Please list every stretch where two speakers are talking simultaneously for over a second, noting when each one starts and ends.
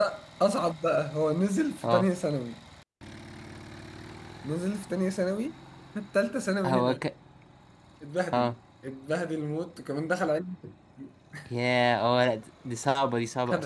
none

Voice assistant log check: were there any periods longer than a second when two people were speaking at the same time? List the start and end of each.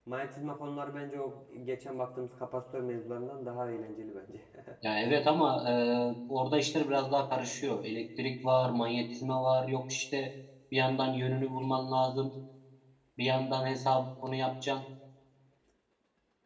none

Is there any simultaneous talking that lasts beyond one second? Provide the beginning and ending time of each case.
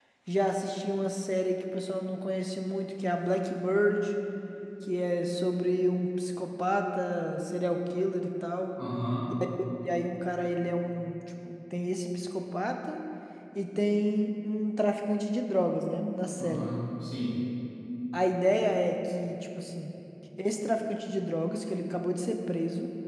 none

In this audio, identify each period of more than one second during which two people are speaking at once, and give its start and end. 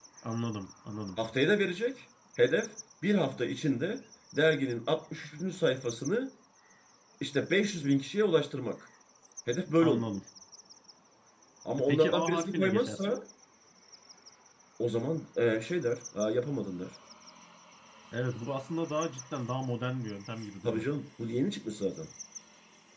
11.8-13.2

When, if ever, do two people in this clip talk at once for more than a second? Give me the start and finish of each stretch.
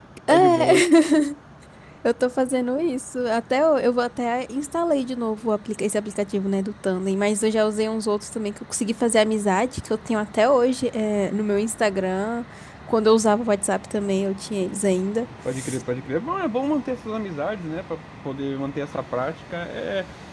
none

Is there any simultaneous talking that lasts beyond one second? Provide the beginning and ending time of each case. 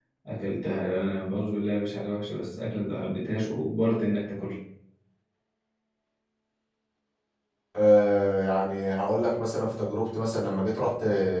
none

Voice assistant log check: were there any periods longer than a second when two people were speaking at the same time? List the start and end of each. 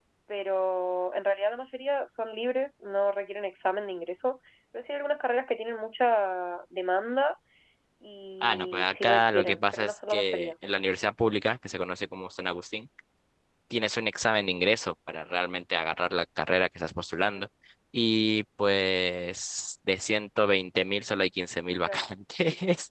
8.4-10.5

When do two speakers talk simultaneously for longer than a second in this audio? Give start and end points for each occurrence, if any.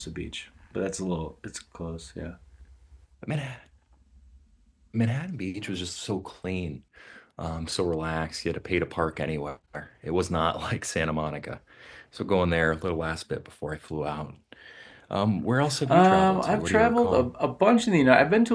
15.9-17.3

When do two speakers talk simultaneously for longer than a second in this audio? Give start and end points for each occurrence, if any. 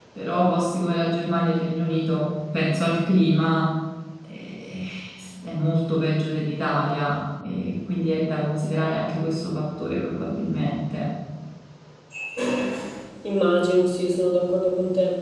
none

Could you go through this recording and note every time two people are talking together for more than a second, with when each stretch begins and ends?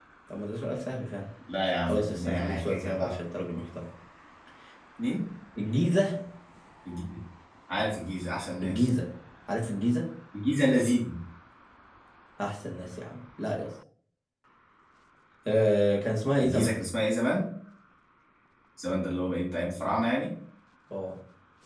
1.9-3.1

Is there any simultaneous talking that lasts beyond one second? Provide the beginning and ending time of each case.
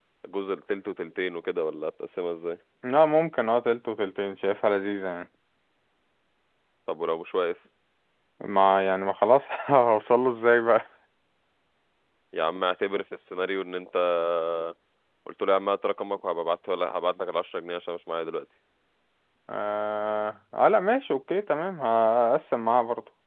none

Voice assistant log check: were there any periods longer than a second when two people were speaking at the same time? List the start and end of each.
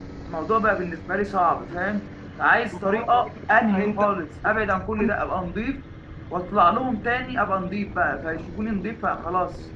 2.9-4.2

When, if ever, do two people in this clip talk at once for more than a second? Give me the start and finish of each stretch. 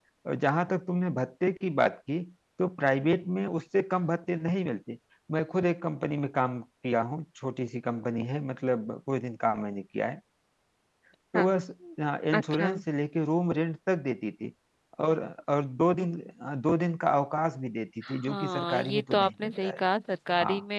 18.1-19.8

